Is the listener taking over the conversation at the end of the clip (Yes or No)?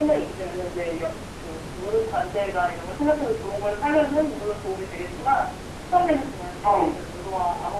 No